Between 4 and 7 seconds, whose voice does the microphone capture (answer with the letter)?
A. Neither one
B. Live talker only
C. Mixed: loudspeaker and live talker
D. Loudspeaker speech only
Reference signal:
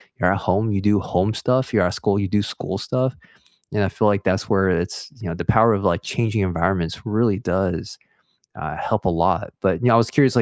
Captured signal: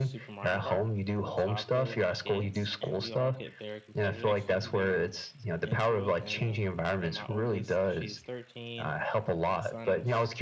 C